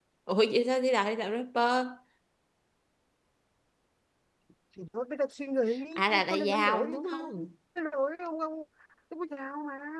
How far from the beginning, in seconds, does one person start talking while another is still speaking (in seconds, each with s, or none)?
6.0 s